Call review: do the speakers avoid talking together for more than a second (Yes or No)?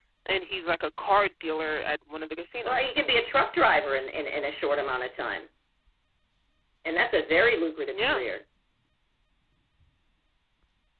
Yes